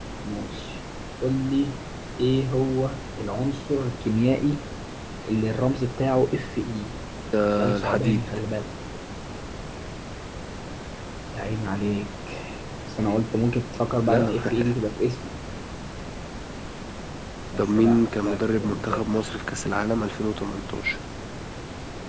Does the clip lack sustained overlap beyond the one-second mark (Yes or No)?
No